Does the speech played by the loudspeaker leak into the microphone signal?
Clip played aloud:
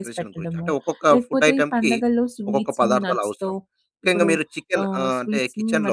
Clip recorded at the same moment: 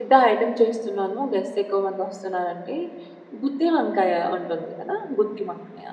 No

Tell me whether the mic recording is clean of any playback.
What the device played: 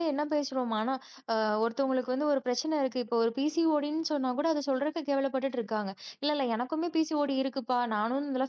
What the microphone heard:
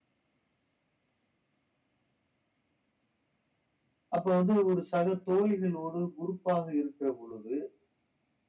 Yes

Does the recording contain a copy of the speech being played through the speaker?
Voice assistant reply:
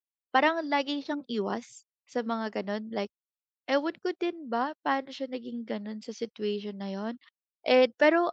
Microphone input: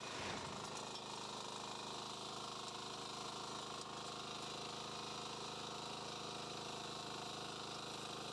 No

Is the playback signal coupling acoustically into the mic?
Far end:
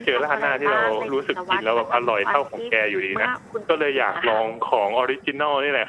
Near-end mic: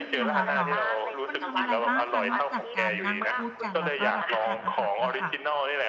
Yes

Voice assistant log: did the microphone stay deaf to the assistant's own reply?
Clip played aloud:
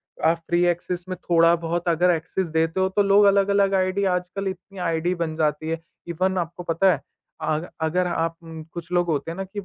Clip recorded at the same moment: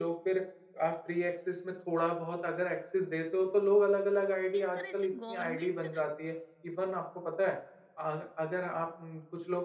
No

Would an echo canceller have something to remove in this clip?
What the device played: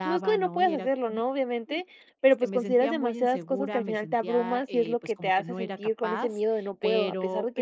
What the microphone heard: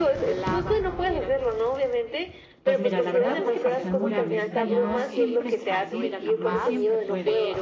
Yes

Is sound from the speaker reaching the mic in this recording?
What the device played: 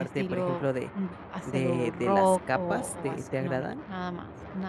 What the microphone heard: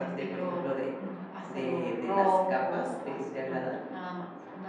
Yes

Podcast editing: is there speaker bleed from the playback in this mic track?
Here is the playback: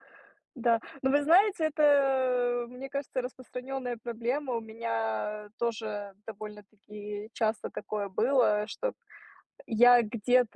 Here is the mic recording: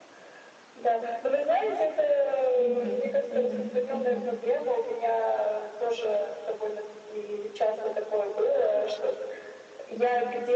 Yes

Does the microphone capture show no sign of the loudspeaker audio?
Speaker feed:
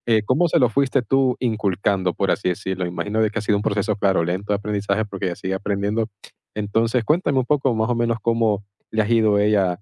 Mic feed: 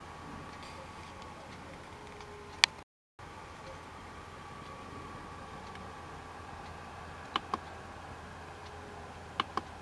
Yes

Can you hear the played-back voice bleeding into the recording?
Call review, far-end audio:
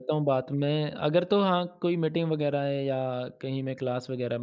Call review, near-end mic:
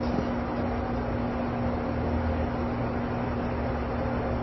No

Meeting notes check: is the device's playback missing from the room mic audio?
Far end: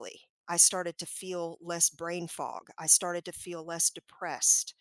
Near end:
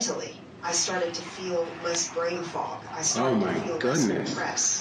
No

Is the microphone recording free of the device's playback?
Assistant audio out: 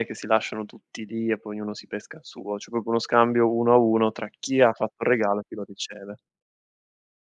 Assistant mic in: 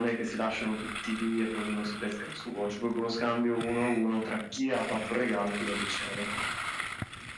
No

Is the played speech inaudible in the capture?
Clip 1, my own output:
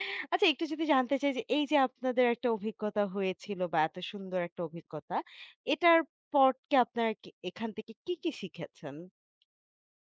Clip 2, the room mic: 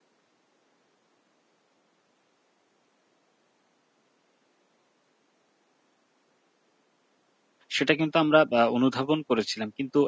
Yes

